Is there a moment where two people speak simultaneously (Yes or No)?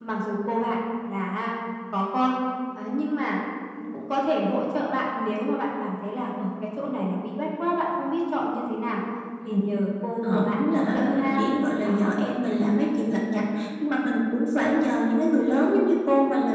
Yes